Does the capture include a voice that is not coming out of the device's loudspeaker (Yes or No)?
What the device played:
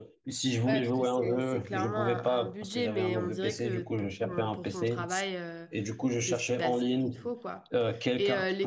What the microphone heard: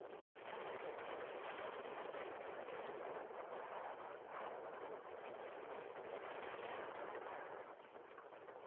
No